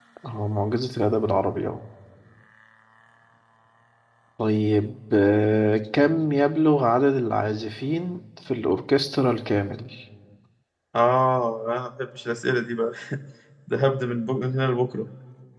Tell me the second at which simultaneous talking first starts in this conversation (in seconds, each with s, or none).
none